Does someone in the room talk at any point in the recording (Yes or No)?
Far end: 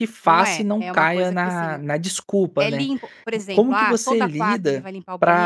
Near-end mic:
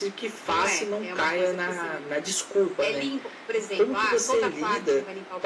No